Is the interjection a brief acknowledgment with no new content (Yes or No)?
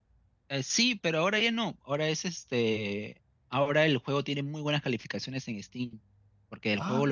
Yes